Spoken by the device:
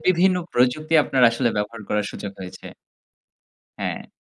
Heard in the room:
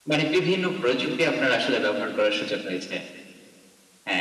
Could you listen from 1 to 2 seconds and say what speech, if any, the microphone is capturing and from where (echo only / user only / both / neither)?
echo only